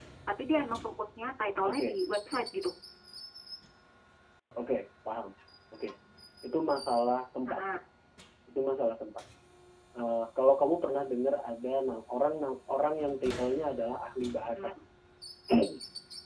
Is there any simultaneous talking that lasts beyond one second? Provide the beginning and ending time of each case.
none

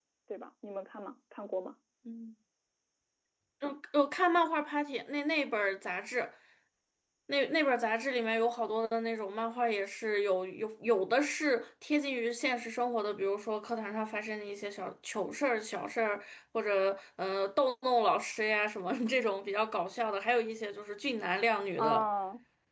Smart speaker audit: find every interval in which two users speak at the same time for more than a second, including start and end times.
none

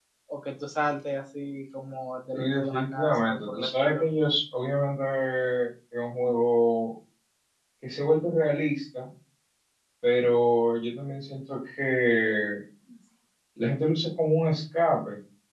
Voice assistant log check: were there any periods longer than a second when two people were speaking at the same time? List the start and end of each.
2.4-4.0

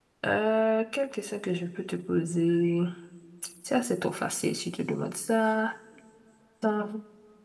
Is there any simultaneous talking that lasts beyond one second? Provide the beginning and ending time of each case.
none

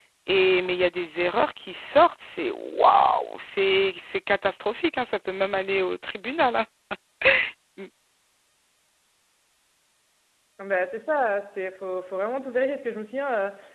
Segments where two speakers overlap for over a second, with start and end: none

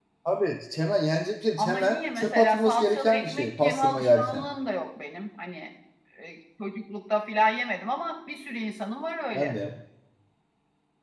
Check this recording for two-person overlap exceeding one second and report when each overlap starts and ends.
1.6-4.5

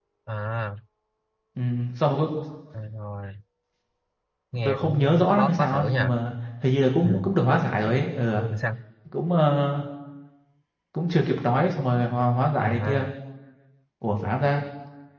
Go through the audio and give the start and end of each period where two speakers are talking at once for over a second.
4.7-6.1

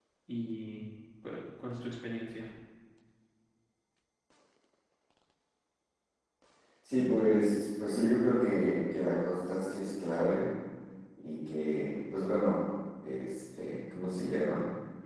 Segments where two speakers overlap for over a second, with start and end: none

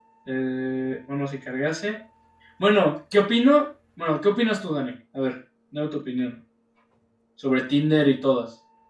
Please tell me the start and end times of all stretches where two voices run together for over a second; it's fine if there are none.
none

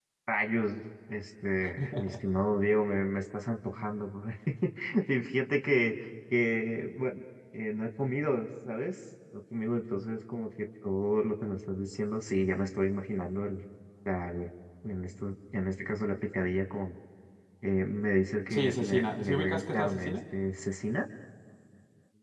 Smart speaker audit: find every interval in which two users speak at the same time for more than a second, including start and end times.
18.5-20.2

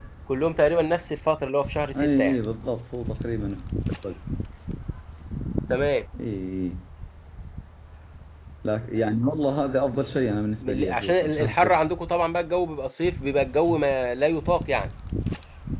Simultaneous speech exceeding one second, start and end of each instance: 10.6-12.0

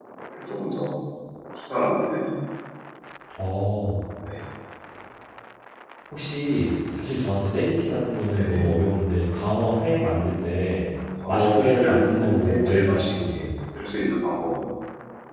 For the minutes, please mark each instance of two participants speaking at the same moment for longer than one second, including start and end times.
11.3-13.5

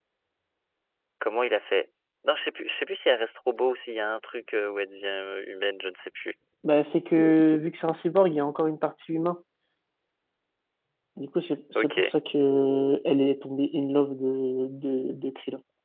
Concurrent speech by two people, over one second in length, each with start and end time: none

